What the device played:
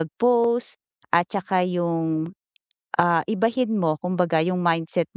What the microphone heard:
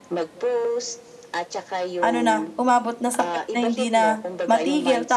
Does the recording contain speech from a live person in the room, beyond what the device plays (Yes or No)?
Yes